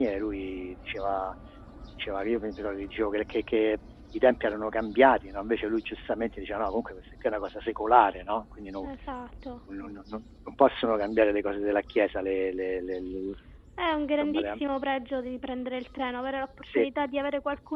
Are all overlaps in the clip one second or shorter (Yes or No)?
Yes